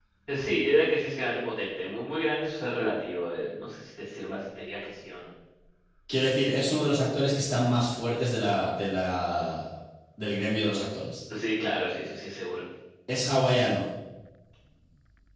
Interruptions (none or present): none